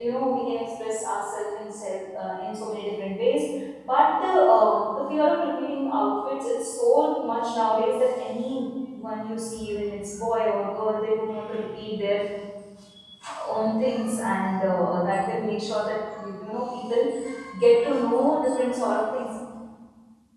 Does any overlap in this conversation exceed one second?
No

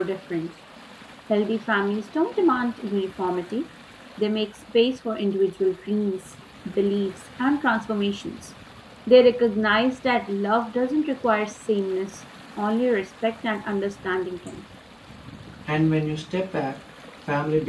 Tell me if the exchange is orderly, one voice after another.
Yes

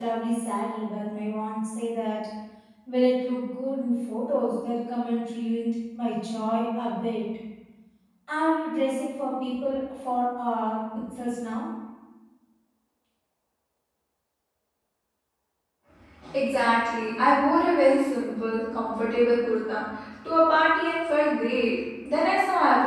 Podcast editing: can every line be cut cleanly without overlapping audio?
Yes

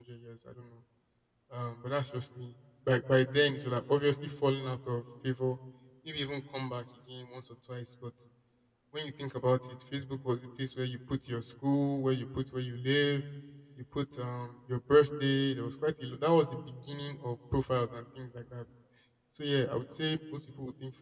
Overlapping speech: No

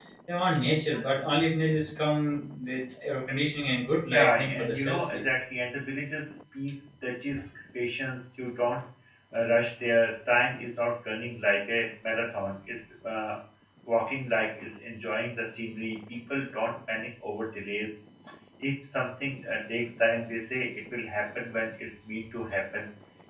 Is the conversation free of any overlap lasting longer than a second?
No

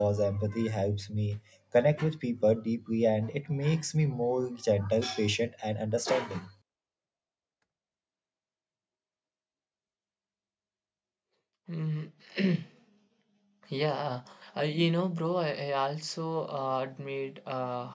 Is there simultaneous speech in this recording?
No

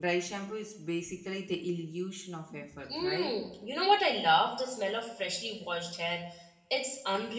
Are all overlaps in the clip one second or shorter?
Yes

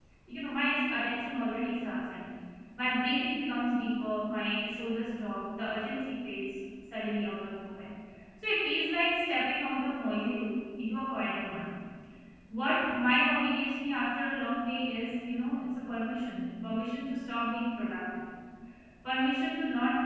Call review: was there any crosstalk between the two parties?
No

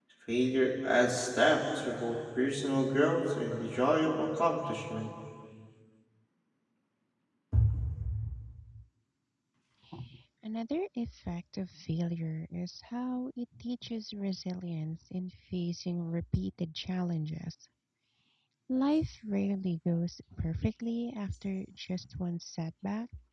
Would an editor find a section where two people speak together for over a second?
No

